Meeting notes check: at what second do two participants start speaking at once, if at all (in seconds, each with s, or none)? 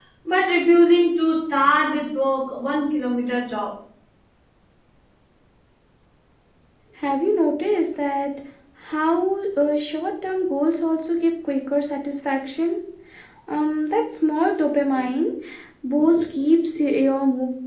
none